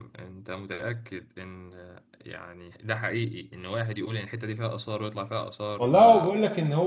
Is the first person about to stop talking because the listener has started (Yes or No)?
Yes